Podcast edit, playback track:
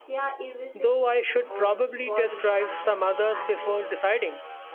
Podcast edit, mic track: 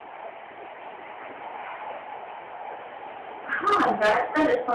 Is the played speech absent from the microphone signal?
Yes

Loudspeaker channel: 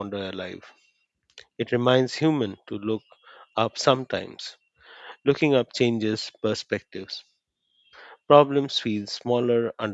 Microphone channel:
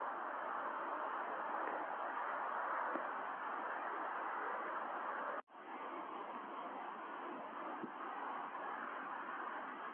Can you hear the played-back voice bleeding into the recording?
No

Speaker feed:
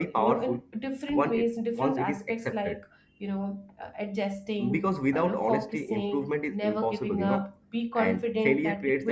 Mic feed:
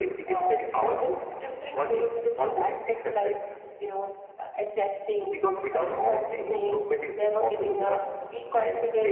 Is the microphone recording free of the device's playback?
No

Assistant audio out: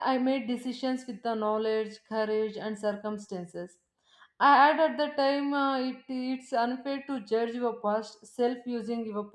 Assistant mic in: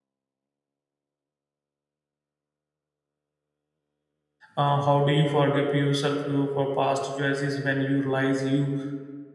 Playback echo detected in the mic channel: No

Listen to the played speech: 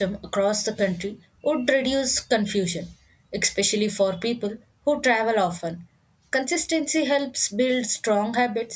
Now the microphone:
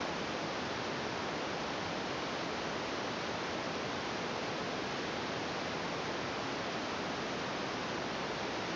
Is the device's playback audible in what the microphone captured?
No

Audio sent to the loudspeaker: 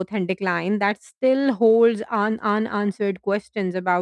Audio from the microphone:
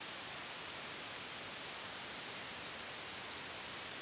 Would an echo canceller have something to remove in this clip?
No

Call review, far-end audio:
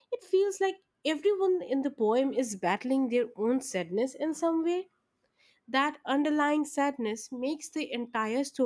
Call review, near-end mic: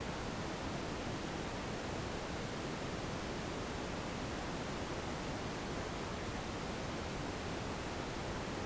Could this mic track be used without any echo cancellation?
Yes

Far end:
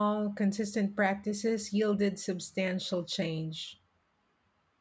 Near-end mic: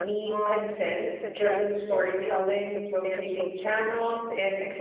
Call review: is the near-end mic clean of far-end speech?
No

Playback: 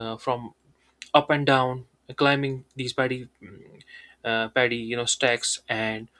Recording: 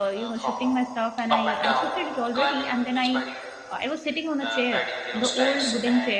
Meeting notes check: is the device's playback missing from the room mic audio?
No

